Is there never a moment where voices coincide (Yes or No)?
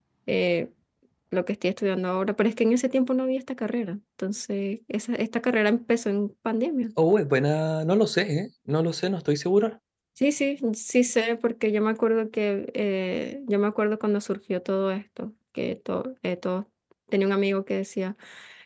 Yes